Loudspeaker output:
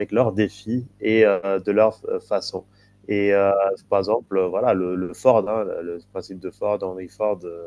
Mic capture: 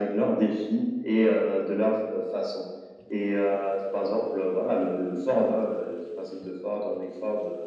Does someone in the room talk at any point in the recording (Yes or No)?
No